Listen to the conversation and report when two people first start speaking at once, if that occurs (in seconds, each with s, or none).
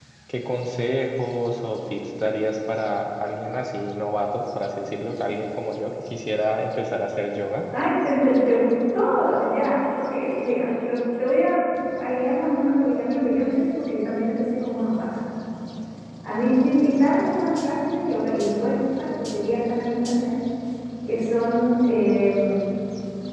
none